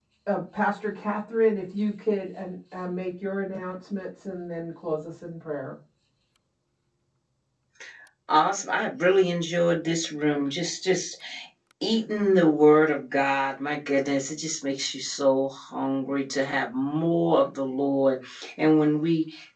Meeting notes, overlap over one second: none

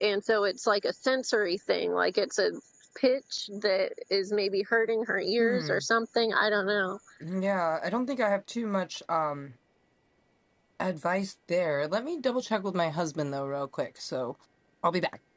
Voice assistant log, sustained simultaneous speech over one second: none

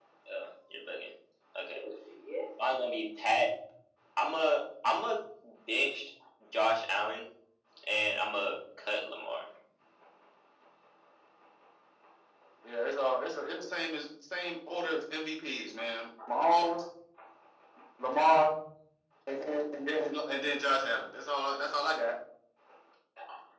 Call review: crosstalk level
none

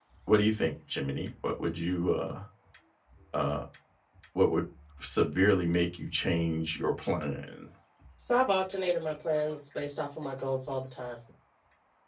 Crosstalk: none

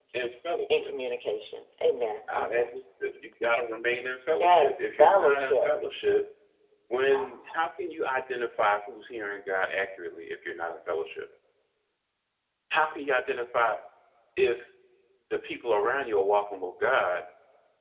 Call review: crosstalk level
present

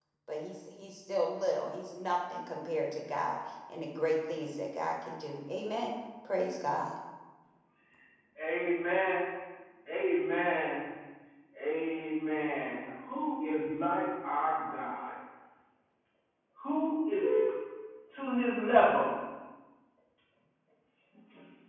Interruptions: none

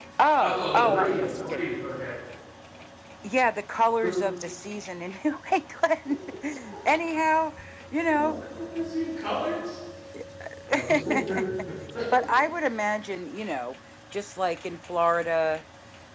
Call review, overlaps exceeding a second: present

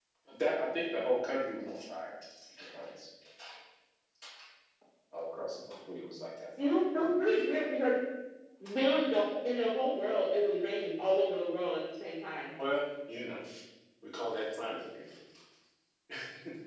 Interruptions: none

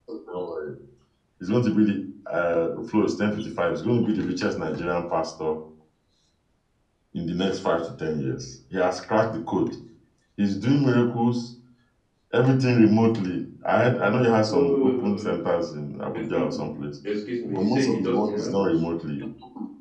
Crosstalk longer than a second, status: present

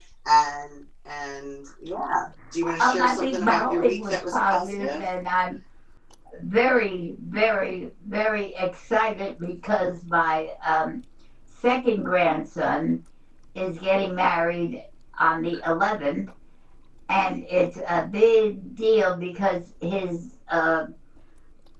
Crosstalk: present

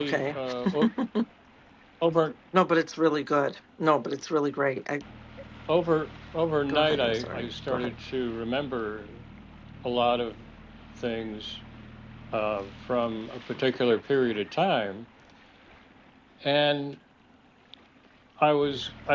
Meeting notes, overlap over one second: present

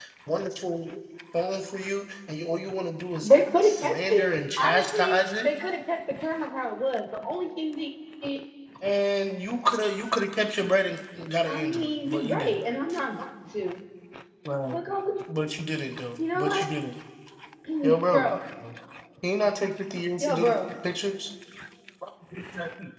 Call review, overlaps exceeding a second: present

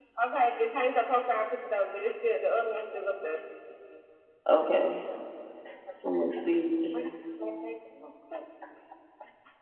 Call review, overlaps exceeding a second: none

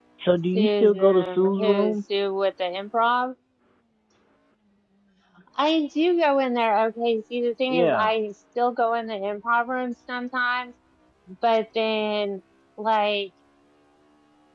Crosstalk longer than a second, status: present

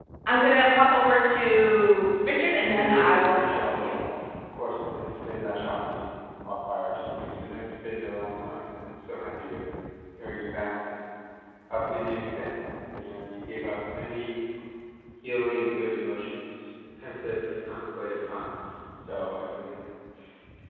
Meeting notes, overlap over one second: present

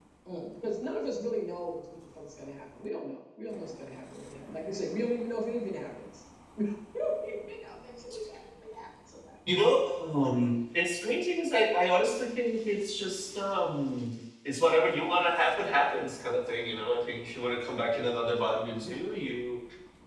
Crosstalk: none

